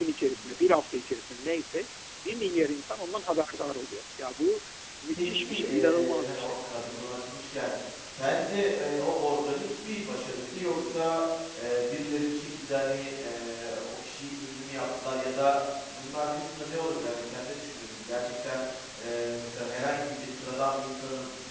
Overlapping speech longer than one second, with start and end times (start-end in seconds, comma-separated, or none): 5.1-6.5